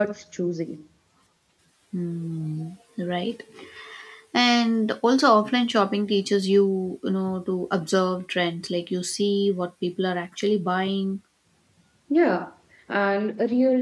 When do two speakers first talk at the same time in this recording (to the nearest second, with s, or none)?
none